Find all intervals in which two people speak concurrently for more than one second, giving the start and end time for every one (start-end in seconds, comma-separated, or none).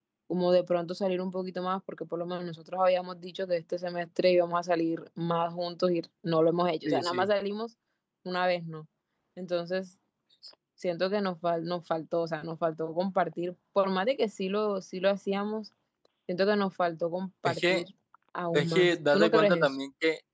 18.5-19.8